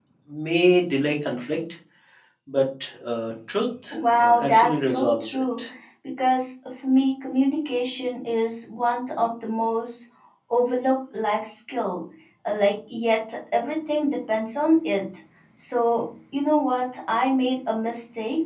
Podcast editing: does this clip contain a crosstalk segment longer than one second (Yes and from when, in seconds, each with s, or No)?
Yes, from 4.2 s